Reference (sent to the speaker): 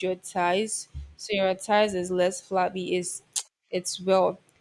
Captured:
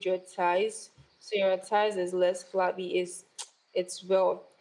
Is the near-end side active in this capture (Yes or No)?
No